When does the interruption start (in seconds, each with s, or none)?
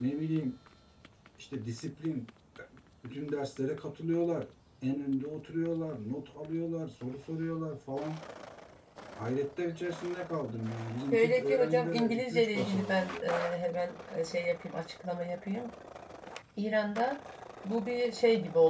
11.1 s